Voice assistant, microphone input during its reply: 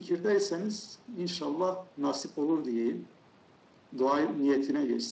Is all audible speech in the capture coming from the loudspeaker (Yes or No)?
Yes